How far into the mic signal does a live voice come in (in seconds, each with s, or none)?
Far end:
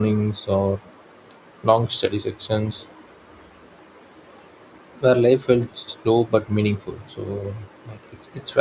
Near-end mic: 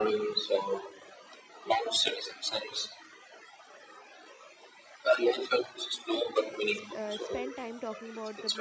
6.7 s